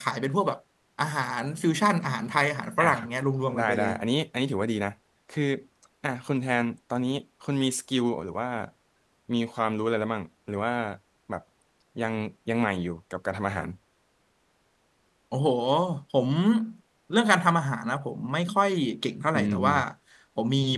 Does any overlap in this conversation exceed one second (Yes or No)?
No